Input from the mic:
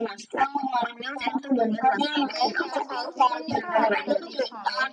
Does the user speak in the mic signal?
Yes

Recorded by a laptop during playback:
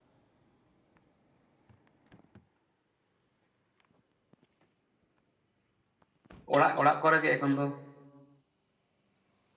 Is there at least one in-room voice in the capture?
Yes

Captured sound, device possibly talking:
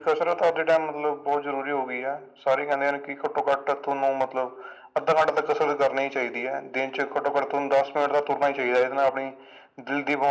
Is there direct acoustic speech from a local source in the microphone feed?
No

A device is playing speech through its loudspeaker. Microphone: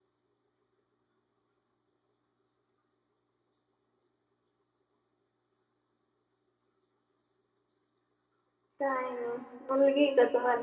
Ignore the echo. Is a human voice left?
Yes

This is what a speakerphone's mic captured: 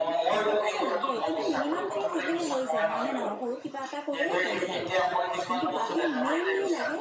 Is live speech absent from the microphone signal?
No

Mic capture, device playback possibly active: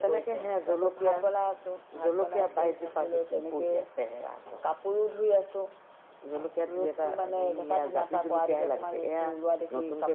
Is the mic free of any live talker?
Yes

